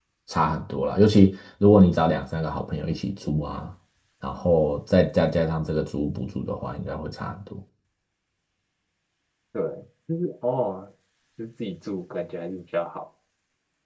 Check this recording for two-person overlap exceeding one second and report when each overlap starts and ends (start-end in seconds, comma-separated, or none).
none